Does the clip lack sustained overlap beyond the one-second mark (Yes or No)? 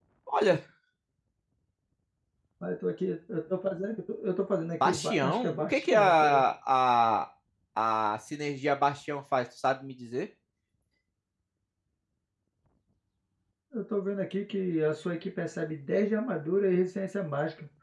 No